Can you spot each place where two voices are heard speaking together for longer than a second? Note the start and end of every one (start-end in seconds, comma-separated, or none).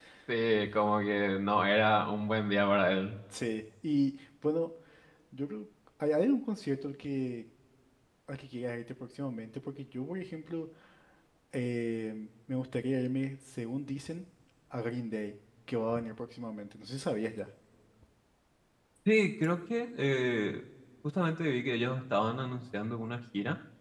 none